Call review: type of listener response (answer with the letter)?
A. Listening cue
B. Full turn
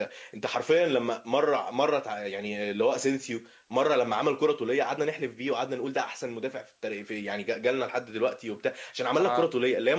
A